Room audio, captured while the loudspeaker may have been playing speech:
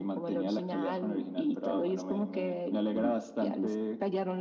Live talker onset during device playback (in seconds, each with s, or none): none